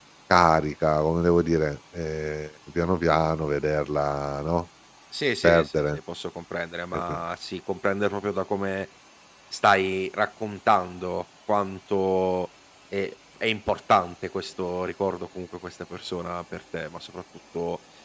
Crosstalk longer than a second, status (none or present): none